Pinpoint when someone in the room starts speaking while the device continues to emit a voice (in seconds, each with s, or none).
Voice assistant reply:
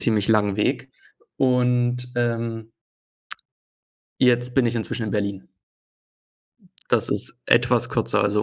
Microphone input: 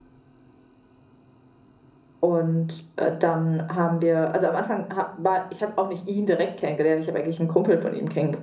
2.2 s